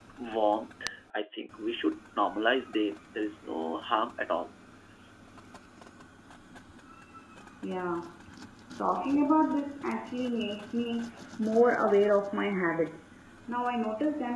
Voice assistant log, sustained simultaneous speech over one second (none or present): none